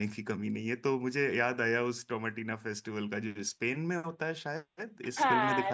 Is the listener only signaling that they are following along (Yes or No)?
No